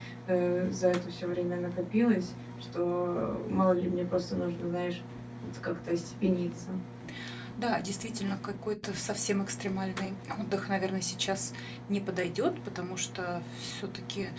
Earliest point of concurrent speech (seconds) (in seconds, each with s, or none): none